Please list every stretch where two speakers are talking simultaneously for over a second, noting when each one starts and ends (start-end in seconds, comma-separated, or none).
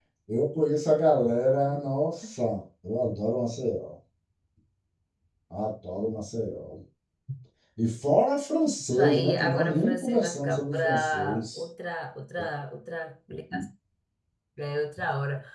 9.0-11.6